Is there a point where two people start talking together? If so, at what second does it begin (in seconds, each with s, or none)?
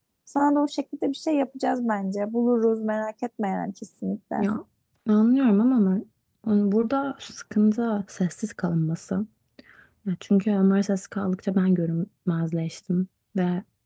none